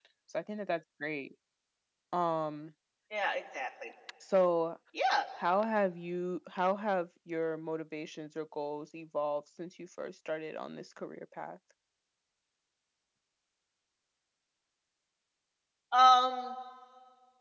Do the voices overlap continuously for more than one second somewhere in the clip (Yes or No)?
No